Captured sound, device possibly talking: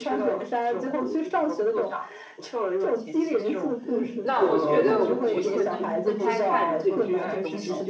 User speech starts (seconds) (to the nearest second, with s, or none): 4 s